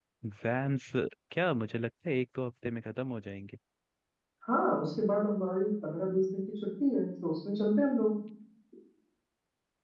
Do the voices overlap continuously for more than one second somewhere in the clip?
No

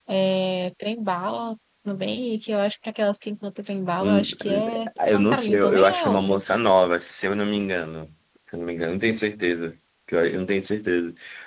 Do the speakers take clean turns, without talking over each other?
No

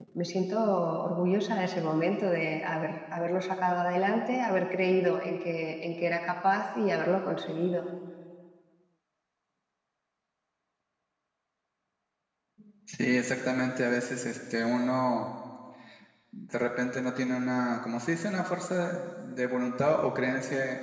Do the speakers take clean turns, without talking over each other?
Yes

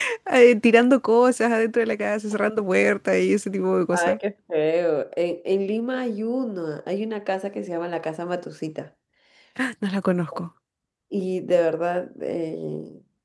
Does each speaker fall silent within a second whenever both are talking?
Yes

